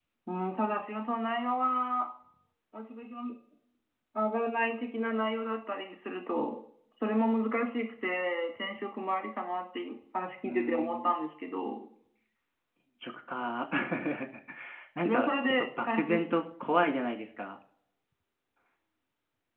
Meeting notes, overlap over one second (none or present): present